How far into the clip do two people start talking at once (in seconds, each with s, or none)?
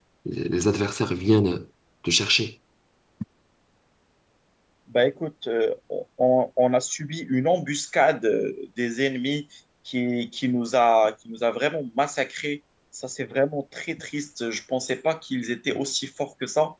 none